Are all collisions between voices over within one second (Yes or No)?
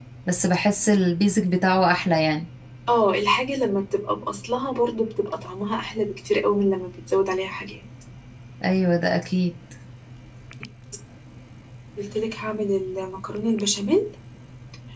Yes